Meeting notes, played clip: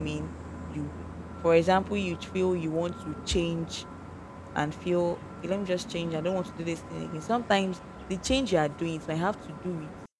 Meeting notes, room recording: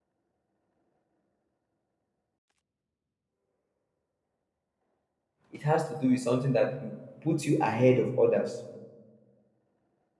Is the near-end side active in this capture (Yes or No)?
Yes